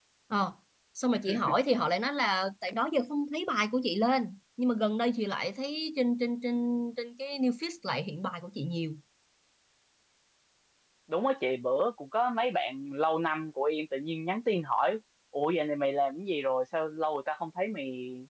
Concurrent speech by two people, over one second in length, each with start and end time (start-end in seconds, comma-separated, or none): none